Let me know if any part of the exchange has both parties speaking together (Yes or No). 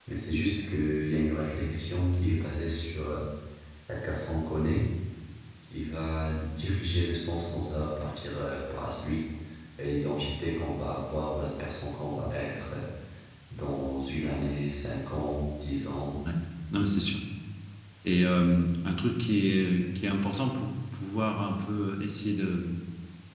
No